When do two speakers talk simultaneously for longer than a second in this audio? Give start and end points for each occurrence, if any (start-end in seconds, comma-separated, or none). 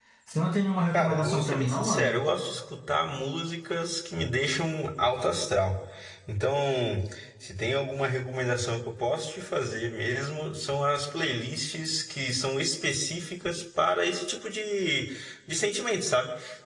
0.9-2.2